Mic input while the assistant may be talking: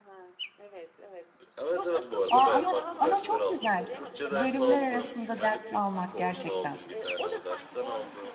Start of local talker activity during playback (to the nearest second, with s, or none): 2 s